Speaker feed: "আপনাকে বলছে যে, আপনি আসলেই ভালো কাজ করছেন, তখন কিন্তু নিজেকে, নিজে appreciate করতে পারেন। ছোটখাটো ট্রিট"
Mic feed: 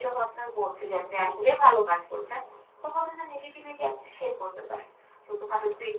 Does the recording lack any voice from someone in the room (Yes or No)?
Yes